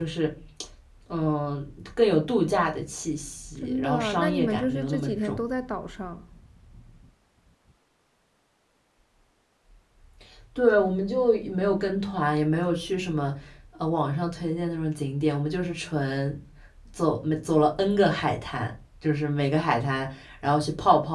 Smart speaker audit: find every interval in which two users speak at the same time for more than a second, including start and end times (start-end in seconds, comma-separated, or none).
3.5-5.4